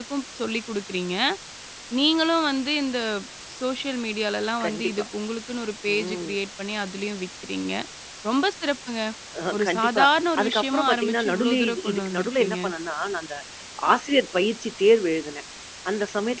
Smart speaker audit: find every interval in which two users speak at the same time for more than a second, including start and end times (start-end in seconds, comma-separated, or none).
10.4-12.6